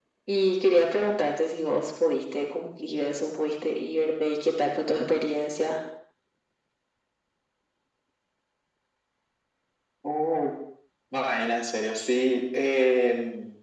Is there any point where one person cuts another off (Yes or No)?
No